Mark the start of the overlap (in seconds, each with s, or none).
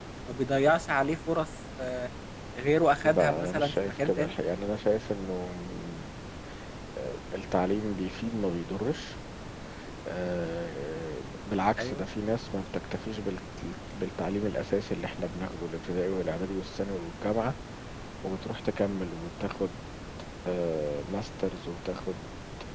3.0 s